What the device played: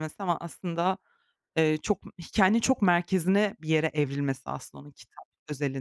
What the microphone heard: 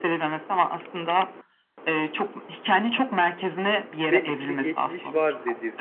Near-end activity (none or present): present